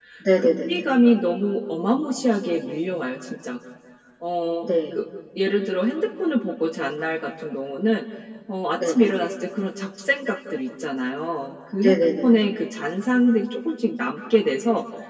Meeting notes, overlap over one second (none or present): none